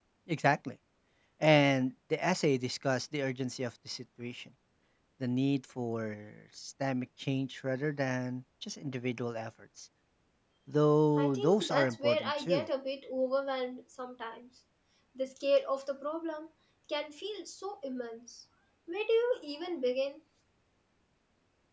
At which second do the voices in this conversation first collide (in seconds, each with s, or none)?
11.2 s